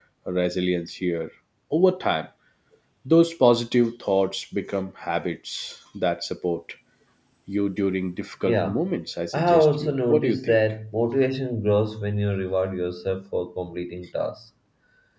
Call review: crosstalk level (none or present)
present